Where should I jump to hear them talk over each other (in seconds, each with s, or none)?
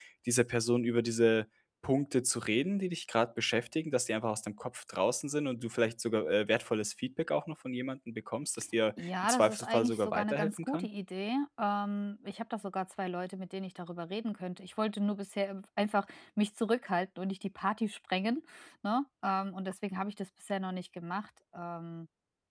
9.0 s